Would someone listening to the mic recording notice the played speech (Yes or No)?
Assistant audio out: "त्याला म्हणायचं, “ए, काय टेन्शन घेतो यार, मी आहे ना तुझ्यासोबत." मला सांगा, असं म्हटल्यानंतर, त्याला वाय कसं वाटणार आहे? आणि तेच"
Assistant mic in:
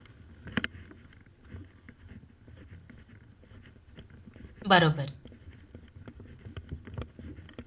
No